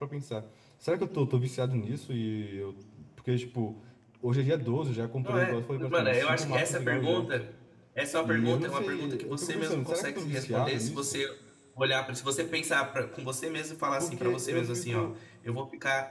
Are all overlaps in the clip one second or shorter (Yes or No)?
No